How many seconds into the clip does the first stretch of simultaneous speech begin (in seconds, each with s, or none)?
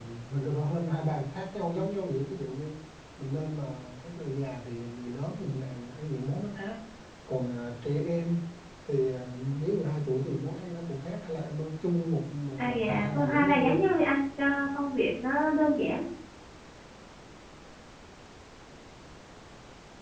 12.6 s